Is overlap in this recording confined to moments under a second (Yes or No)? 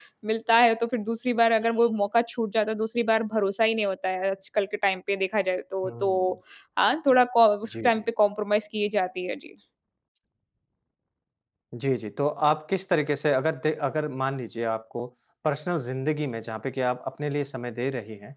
Yes